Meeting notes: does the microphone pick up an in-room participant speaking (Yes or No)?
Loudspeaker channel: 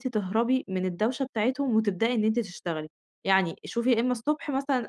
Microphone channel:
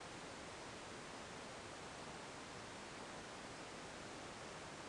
No